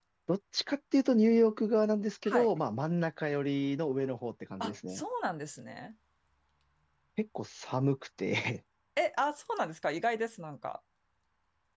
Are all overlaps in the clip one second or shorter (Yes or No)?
Yes